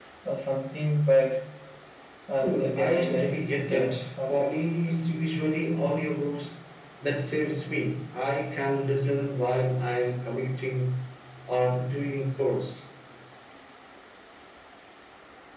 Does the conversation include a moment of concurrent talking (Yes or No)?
Yes